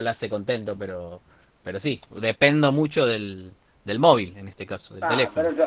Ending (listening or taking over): taking over